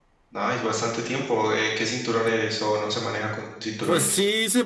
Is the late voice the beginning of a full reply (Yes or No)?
Yes